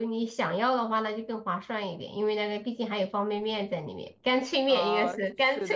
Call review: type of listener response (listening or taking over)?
taking over